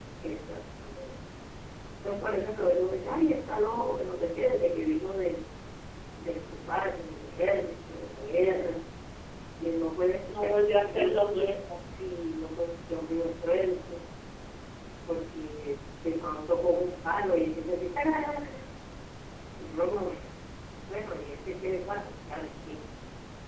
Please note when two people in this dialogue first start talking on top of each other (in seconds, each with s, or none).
10.3 s